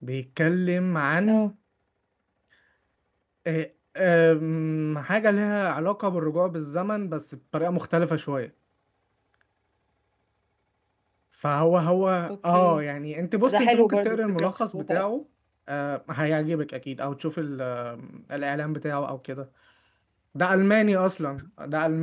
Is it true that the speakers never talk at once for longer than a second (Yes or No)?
No